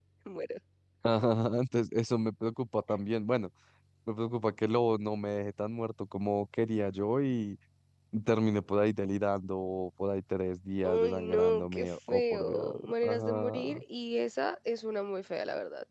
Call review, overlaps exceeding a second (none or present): present